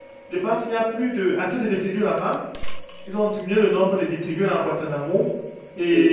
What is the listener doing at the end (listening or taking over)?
listening